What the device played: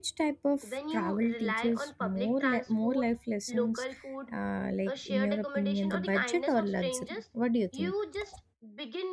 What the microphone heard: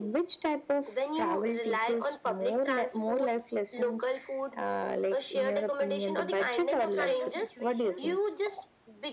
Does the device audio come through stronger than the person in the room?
Yes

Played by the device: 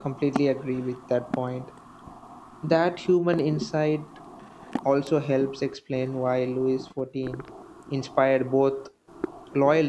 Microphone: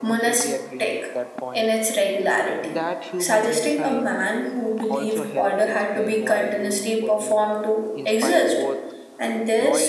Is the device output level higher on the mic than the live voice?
No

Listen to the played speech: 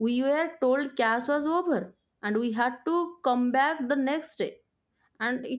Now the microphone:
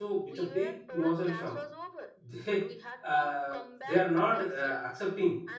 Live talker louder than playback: Yes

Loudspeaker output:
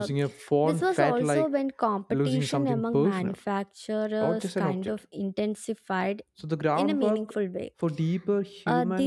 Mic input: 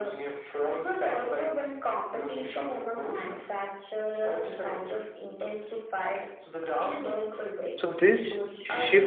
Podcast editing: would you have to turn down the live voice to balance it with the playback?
Yes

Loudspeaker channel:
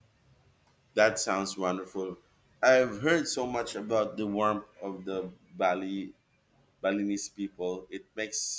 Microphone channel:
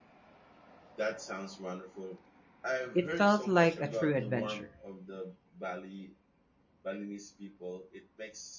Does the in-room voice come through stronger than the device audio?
Yes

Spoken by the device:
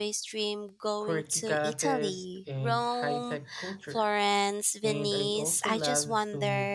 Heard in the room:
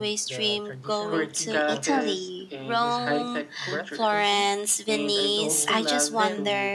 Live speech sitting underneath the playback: Yes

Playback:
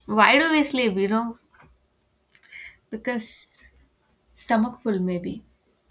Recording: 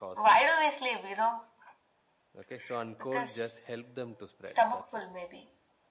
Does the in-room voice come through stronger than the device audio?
No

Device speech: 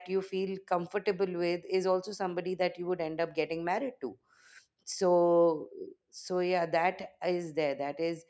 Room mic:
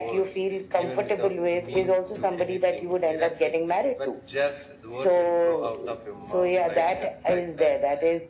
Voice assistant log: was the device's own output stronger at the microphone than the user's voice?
Yes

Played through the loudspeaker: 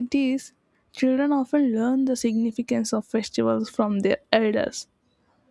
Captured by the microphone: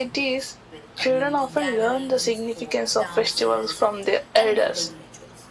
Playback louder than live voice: Yes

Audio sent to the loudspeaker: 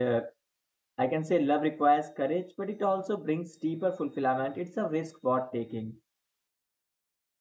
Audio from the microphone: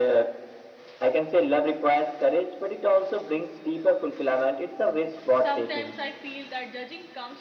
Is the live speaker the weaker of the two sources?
Yes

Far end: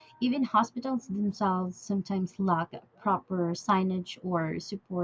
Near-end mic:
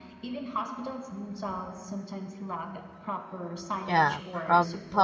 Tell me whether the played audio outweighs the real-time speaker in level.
No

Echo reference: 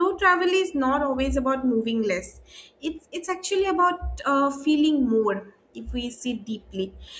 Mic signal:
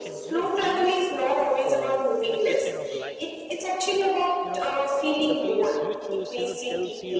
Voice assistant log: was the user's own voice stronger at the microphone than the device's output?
No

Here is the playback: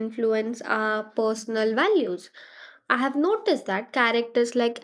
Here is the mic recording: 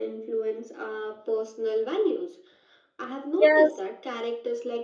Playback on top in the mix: No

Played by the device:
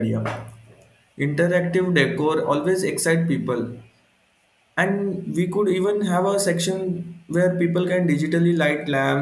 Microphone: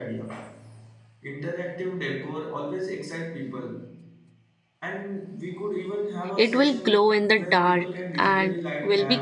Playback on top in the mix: No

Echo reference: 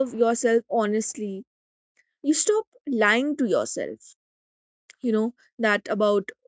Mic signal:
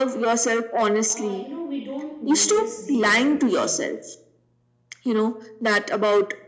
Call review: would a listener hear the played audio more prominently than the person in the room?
Yes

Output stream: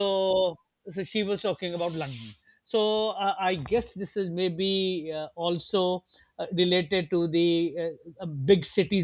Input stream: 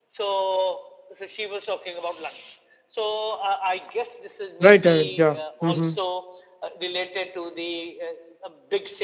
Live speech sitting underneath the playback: No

